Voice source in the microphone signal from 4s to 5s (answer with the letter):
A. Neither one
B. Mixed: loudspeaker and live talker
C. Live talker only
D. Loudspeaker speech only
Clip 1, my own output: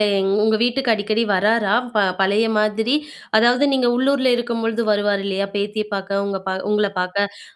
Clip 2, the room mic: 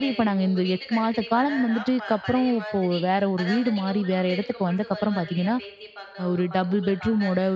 B